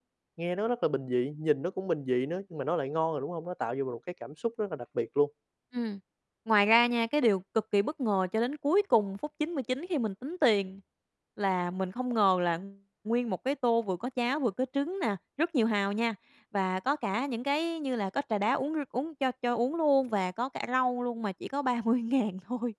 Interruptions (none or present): none